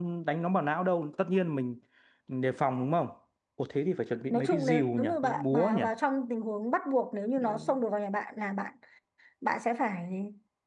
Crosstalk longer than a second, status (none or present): present